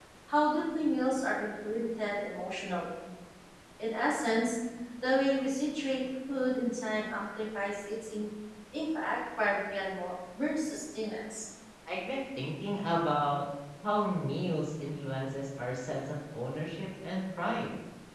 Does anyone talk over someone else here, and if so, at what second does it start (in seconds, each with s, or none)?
none